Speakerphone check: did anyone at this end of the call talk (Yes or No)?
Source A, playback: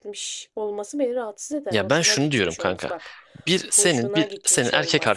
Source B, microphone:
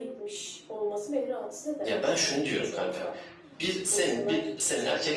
No